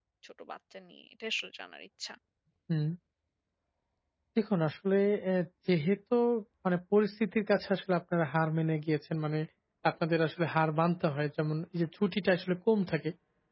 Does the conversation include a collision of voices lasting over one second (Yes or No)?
No